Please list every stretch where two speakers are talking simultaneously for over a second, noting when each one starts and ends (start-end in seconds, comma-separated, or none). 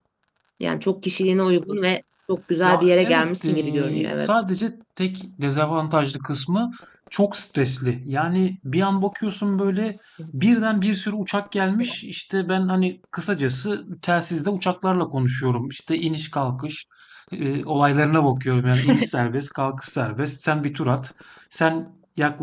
2.6-4.3